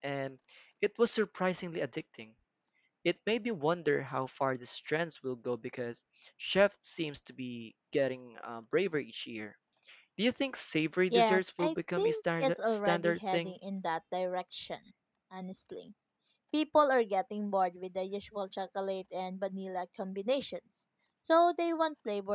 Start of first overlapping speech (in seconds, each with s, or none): 11.1 s